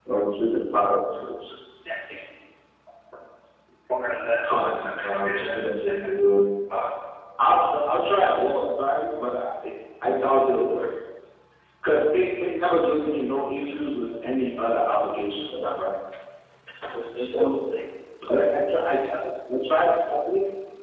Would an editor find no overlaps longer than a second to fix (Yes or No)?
No